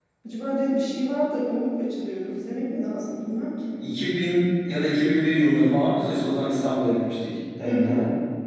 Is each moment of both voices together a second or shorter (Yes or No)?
Yes